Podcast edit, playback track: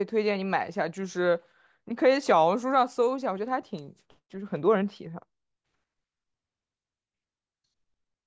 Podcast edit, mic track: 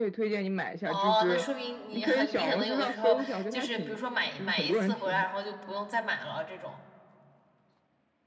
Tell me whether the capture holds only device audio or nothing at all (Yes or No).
No